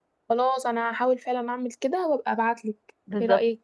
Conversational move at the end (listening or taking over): taking over